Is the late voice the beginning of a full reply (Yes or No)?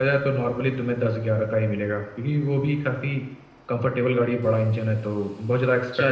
Yes